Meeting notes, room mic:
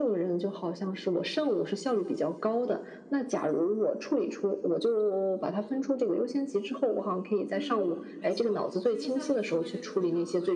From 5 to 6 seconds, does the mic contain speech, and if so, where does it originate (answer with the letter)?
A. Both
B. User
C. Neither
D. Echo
D